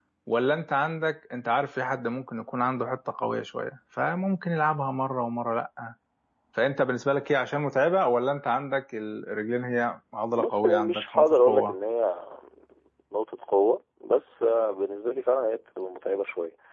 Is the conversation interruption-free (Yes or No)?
No